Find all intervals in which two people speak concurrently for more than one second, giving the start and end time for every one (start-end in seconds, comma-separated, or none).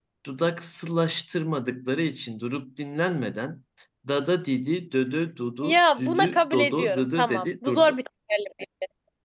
5.6-8.0